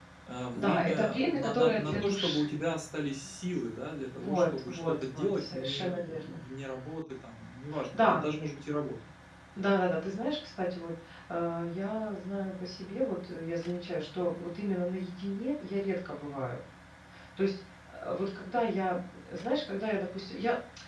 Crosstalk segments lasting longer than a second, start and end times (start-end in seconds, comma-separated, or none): 0.5-2.5, 4.2-6.4